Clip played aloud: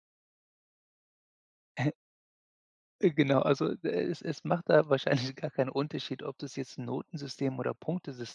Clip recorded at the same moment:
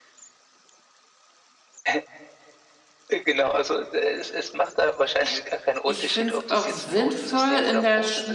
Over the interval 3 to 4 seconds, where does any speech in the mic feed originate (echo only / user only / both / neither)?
echo only